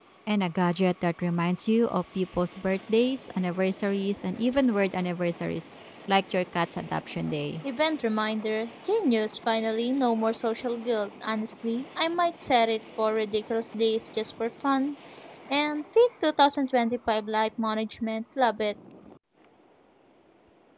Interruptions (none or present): none